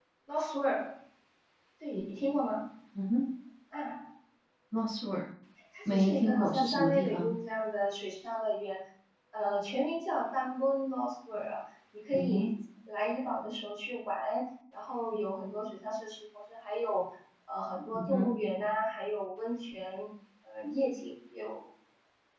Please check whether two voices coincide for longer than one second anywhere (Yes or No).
Yes